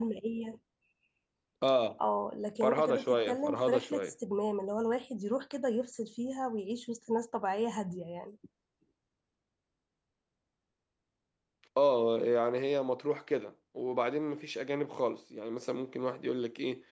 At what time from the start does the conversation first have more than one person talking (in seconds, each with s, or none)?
2.6 s